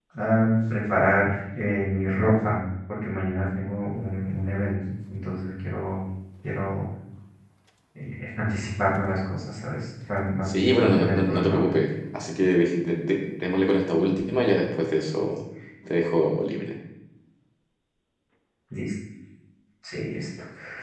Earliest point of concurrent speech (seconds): 10.5 s

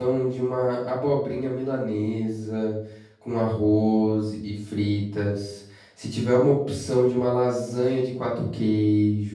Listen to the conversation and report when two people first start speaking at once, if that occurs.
none

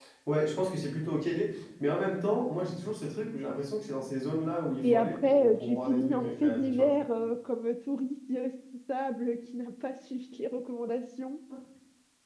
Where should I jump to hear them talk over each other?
4.8 s

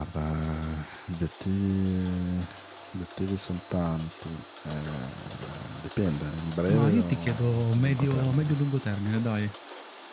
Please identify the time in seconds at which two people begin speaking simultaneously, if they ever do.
6.7 s

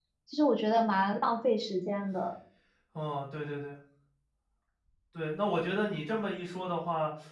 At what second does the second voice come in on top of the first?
none

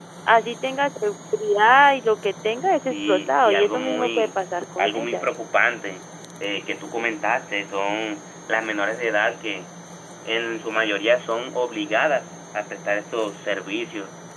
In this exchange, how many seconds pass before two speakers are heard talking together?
2.8 s

